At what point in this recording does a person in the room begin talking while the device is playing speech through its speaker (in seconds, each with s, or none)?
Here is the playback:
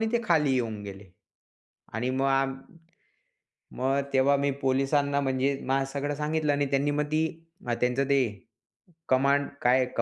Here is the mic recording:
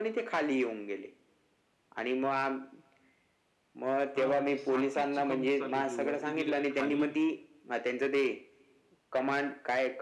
4.2 s